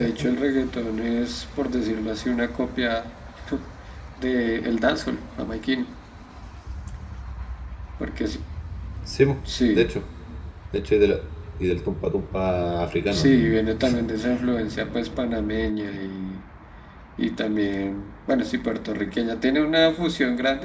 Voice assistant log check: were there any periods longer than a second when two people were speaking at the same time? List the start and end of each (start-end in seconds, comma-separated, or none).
none